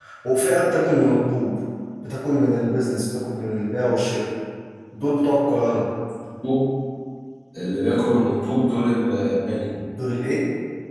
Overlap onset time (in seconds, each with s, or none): none